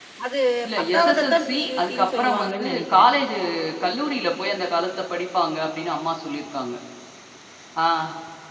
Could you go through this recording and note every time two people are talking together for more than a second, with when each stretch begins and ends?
0.8-3.0

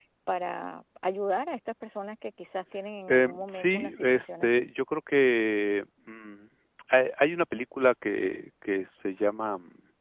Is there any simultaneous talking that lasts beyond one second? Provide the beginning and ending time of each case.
3.1-4.6

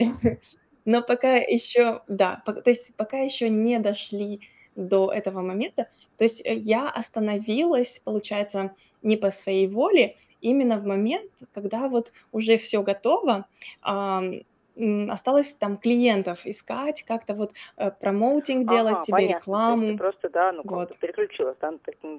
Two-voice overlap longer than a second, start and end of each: 18.7-20.0

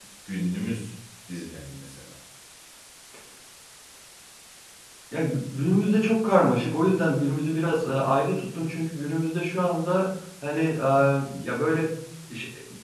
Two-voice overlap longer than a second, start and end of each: none

